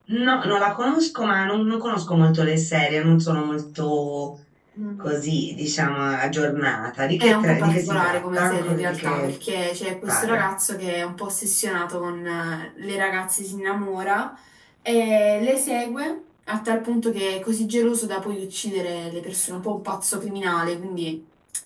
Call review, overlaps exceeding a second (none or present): present